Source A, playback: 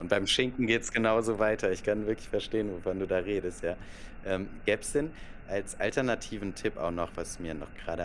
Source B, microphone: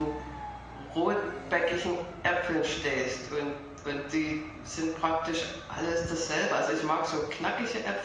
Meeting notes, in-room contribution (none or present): present